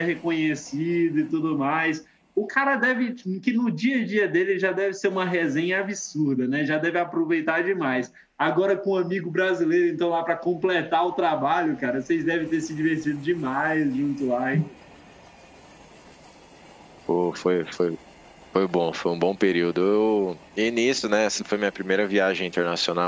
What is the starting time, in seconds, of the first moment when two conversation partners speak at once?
none

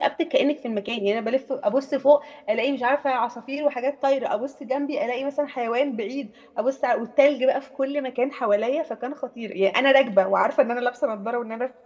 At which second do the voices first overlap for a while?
none

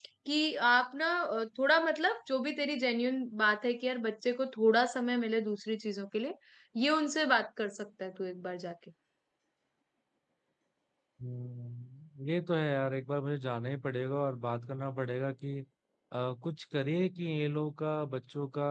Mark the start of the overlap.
none

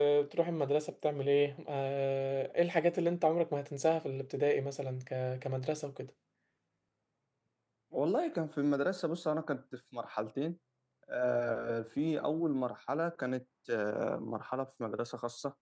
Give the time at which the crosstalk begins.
none

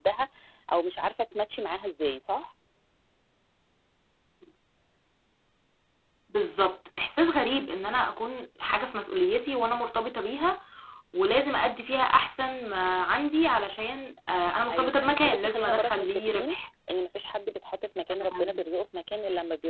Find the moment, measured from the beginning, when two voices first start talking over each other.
14.7 s

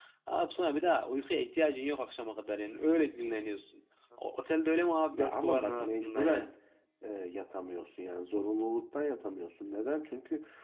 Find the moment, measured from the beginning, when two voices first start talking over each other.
5.1 s

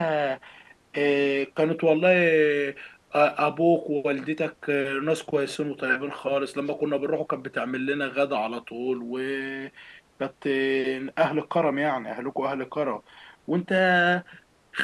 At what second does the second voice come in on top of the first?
none

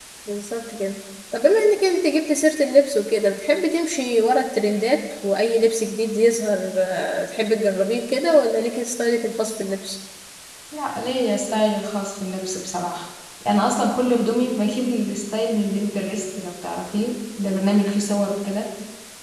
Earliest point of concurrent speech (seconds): none

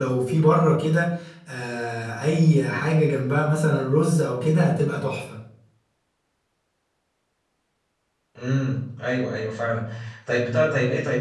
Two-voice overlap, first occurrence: none

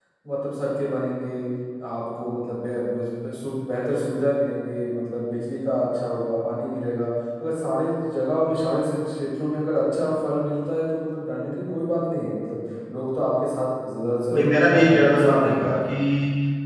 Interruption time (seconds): 14.3 s

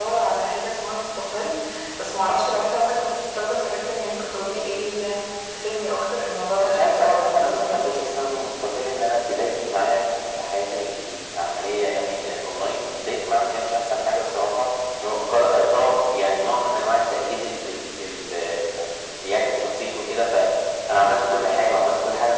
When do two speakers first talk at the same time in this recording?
6.6 s

